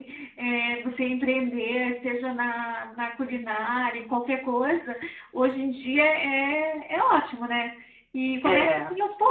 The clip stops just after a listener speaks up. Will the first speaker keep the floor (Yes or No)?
Yes